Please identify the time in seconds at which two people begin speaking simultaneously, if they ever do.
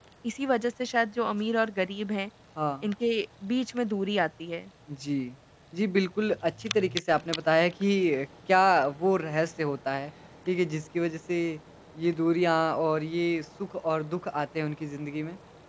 none

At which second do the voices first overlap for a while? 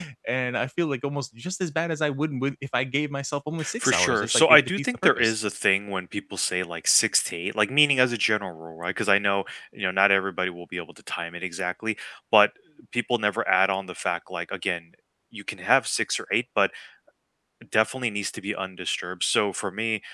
3.6 s

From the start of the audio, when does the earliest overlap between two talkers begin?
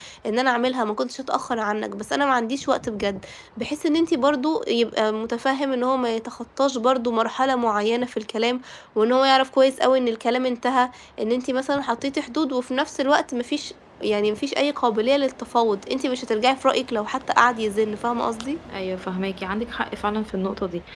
none

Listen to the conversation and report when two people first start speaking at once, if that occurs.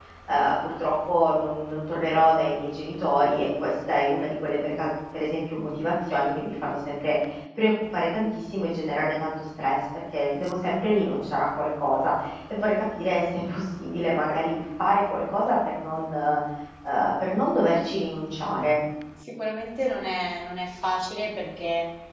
none

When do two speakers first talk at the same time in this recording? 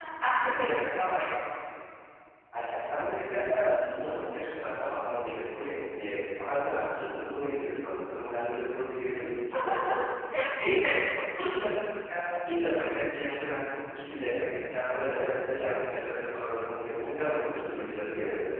none

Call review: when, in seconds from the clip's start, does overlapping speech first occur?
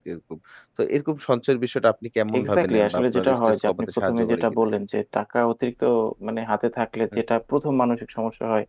2.3 s

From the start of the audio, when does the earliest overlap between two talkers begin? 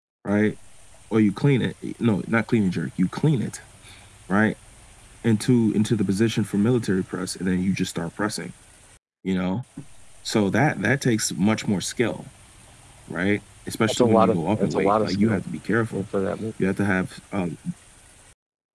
13.9 s

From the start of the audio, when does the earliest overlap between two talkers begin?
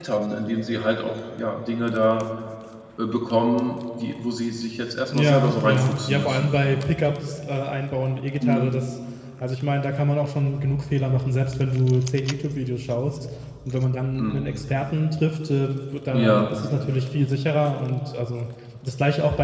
5.1 s

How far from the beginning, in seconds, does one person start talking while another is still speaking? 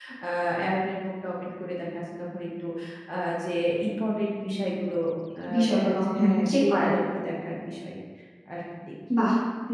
5.5 s

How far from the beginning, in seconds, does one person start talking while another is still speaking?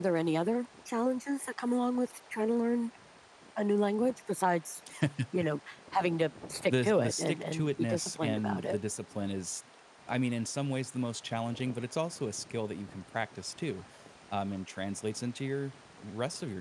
6.7 s

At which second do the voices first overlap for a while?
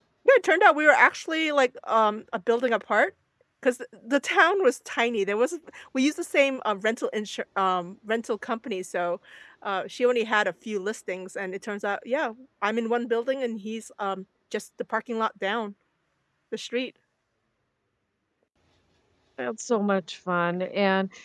none

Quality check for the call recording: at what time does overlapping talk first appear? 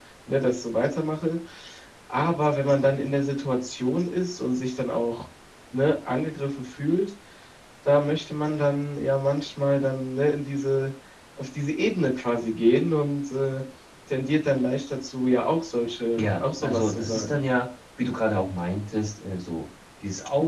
16.1 s

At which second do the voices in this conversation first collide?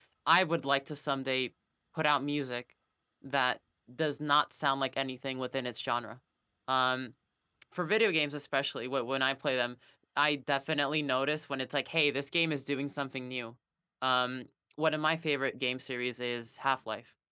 none

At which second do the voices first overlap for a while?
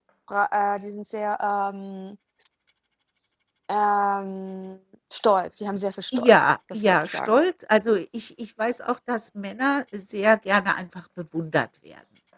6.1 s

